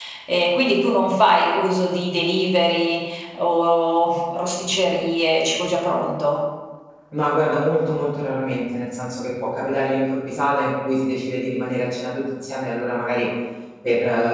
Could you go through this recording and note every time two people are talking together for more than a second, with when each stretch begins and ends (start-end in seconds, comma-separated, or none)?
none